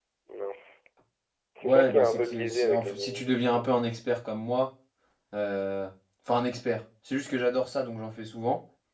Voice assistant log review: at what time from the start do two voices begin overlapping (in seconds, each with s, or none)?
1.6 s